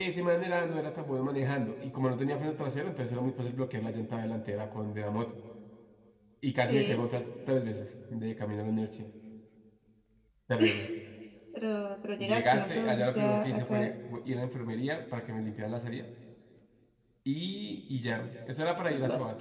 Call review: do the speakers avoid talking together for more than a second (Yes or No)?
No